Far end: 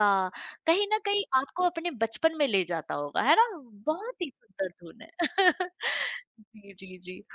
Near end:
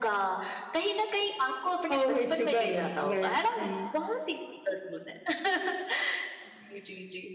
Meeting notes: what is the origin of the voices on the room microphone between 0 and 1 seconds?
echo only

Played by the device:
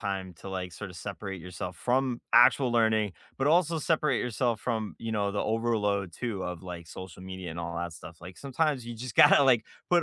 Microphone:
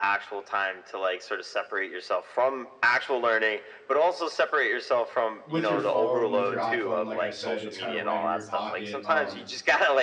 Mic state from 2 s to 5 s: echo only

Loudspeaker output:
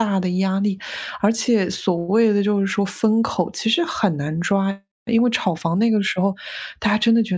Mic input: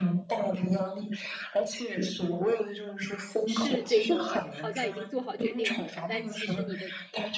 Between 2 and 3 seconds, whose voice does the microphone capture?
echo only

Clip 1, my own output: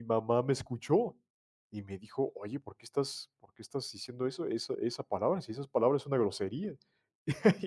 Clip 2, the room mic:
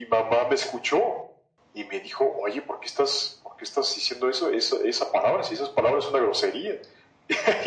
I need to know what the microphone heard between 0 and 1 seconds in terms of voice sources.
echo only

